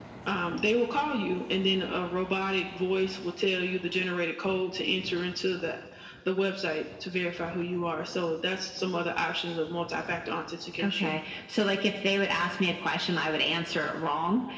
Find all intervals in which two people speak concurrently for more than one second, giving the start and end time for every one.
none

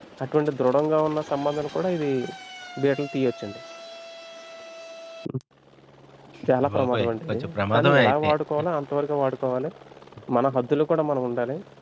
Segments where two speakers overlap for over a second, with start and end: 6.6-8.3

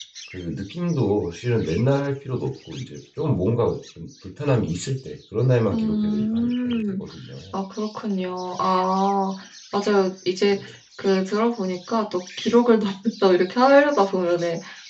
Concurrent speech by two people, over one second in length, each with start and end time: 5.7-7.0

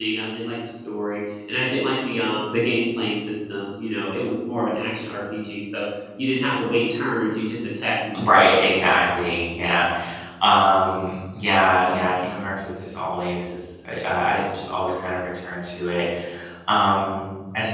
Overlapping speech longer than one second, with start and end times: none

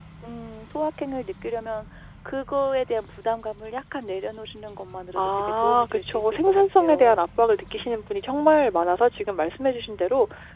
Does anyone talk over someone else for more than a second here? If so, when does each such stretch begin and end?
5.2-7.2

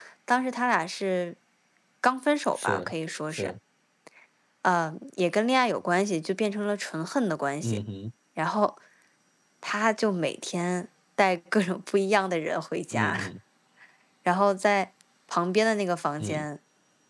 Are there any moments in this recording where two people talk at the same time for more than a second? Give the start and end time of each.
none

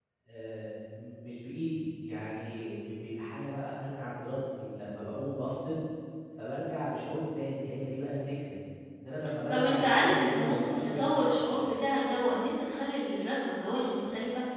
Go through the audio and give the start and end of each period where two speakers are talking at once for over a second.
9.5-11.8

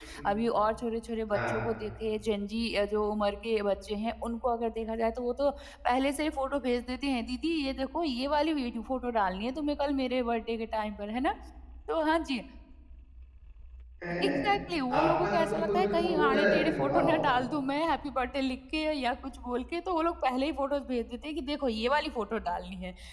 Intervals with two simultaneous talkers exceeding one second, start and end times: 15.0-17.2

